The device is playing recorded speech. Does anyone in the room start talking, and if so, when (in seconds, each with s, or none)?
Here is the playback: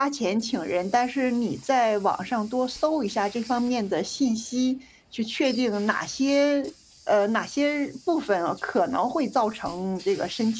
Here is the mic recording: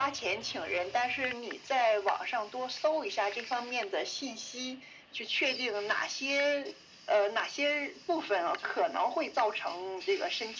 none